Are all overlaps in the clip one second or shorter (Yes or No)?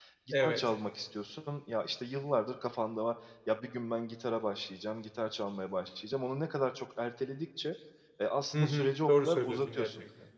No